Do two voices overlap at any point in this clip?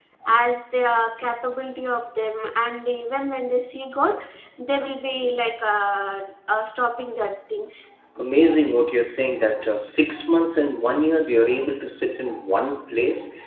No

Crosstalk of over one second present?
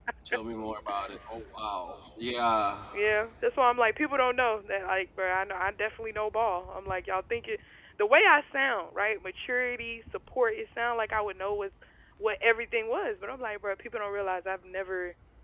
No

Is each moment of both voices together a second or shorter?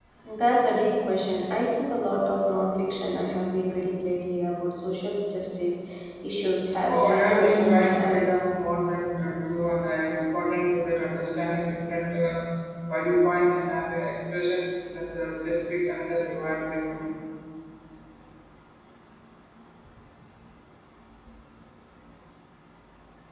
No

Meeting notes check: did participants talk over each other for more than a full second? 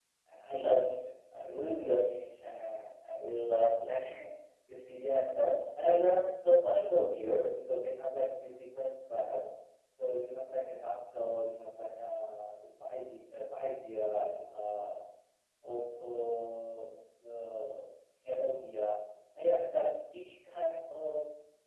No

